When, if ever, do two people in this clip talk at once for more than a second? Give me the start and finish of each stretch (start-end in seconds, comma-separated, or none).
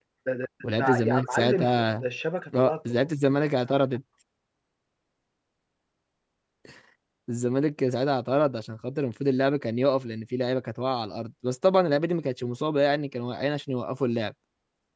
0.7-2.0